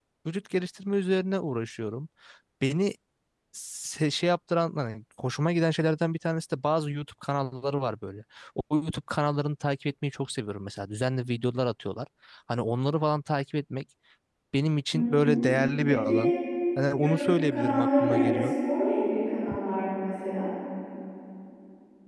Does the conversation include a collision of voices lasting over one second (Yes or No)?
Yes